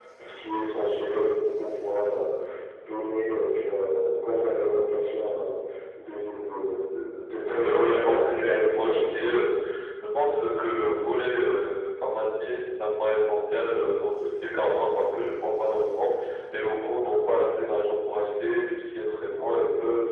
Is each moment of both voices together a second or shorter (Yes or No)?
No